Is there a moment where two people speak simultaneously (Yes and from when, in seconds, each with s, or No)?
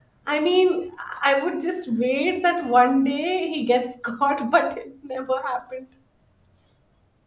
No